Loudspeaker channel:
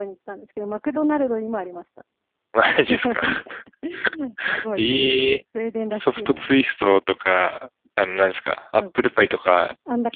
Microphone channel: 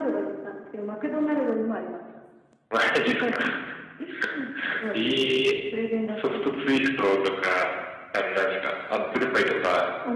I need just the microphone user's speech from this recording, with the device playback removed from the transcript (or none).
none